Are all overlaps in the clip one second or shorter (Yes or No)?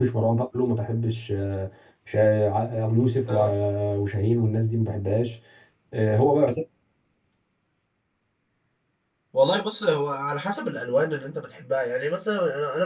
Yes